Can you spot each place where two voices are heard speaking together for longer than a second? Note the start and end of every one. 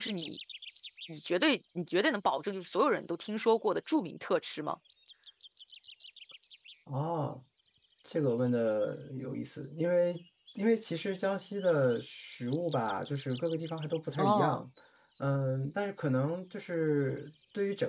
none

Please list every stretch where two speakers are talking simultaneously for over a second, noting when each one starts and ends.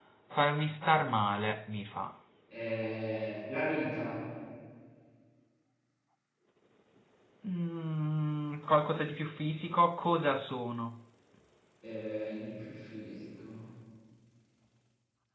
none

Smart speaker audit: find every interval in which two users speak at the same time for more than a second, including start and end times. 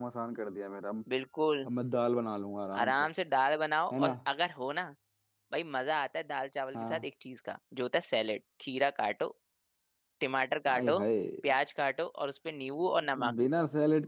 none

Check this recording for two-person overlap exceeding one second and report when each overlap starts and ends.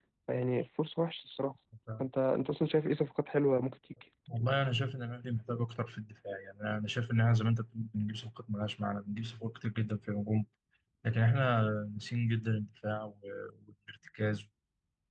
none

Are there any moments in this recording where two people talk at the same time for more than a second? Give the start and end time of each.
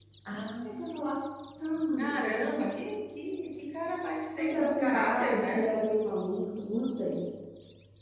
4.4-5.7

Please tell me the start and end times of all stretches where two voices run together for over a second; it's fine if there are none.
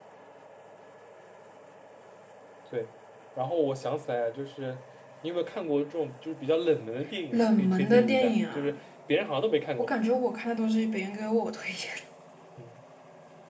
7.3-8.7

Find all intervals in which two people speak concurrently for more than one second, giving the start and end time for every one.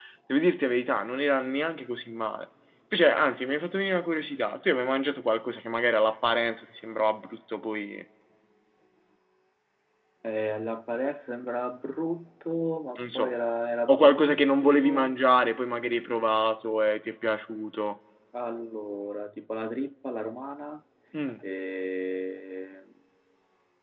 13.9-15.1

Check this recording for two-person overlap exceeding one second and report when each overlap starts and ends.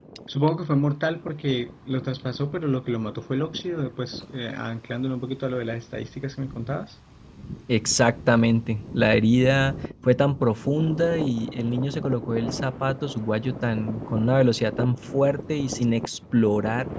none

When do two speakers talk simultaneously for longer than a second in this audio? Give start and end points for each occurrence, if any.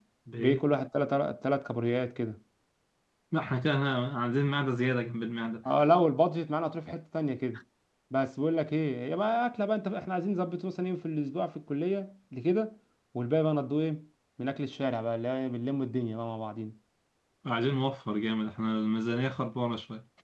none

